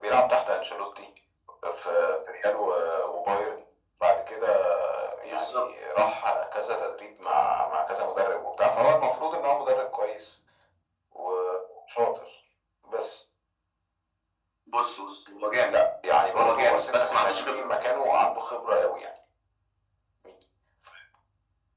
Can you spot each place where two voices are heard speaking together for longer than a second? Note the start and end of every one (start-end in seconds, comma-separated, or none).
16.4-17.7